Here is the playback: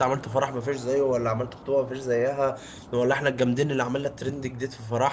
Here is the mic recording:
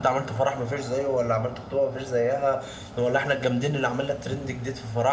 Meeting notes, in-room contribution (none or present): none